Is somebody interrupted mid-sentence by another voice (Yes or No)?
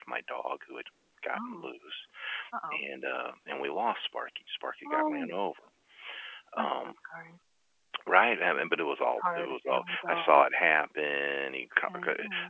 Yes